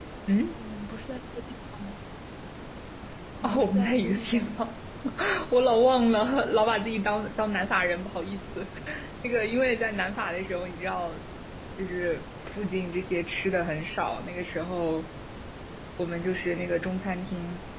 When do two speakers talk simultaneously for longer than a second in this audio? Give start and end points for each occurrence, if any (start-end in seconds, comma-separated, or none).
3.4-4.6